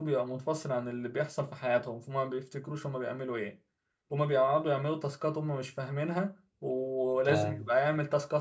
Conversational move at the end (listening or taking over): listening